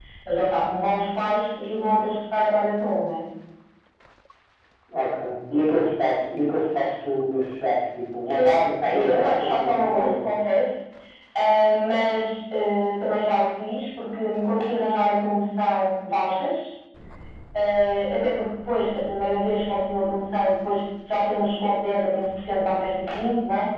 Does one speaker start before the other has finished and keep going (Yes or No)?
Yes